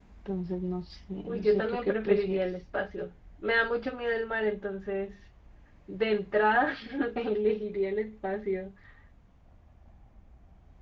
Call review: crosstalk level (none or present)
present